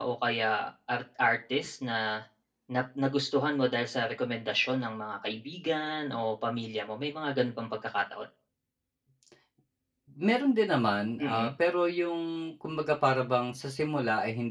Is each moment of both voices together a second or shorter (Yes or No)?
Yes